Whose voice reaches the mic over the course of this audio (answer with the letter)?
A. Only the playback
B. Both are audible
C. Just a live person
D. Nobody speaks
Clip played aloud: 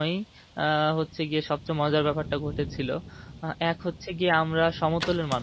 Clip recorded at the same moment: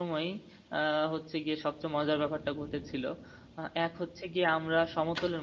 A